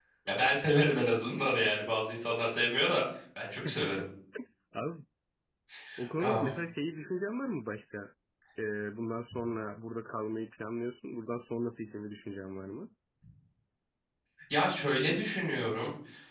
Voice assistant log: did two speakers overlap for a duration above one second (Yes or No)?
No